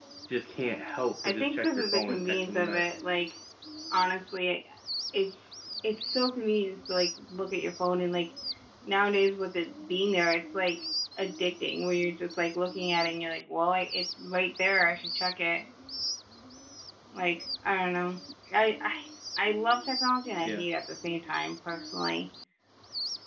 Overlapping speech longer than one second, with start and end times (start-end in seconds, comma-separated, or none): 1.2-2.8